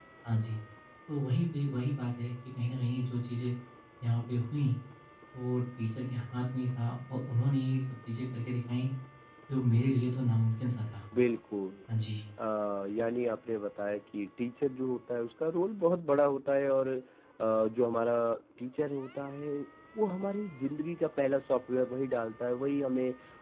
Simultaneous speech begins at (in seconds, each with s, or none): none